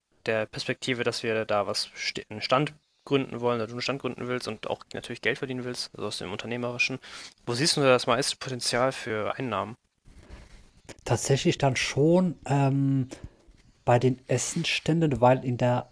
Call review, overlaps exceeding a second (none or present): none